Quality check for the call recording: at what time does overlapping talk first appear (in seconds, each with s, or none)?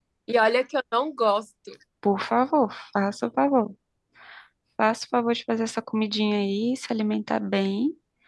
none